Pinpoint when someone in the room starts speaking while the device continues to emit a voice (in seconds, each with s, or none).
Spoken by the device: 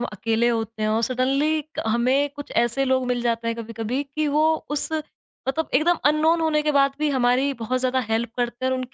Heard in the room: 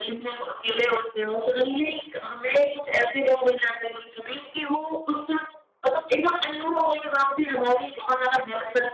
none